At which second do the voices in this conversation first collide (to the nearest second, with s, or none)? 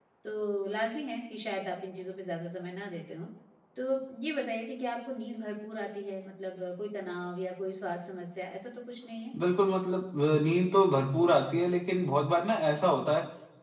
none